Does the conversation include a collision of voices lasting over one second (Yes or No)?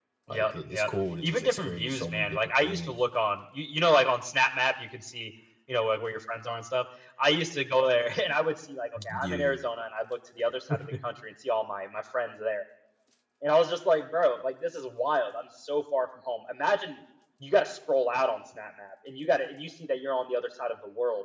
Yes